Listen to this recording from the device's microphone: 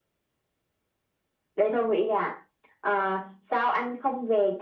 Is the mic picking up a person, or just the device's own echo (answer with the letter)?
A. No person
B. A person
A